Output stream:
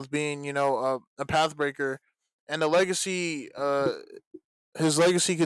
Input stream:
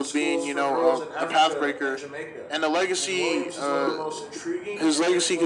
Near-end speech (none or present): present